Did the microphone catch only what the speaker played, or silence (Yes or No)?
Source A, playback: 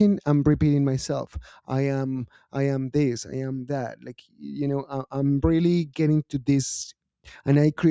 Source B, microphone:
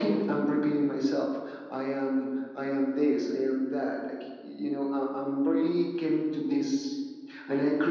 Yes